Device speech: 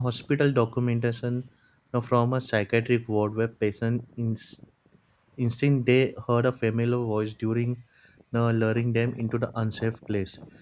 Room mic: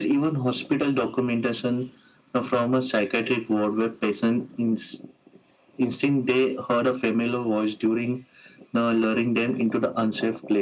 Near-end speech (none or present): none